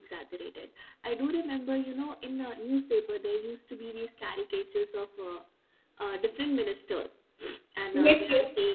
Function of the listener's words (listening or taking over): listening